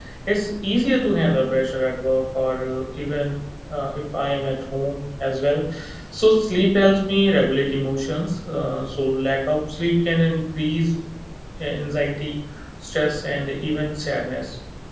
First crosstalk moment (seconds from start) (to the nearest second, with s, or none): none